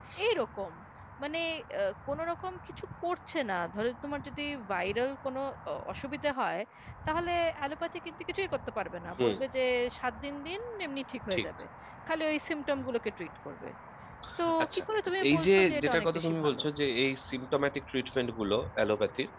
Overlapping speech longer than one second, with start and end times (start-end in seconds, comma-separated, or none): 15.3-16.6